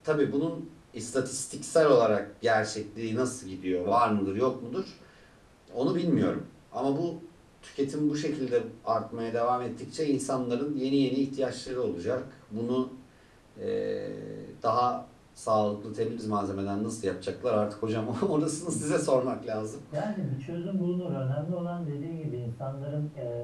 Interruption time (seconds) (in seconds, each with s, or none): none